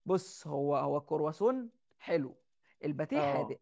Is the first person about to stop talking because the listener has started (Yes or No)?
No